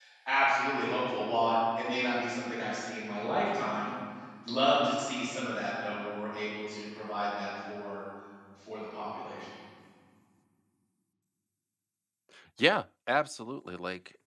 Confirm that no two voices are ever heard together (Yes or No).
Yes